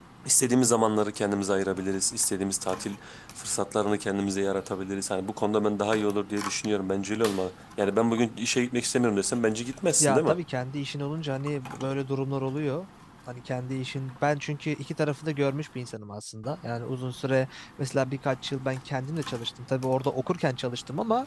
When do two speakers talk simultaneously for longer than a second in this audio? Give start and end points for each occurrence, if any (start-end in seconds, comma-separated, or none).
none